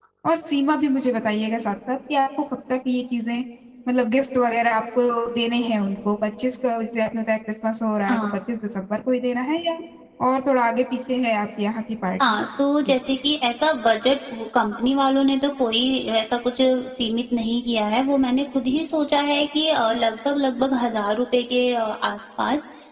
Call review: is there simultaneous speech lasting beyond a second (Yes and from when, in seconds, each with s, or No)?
No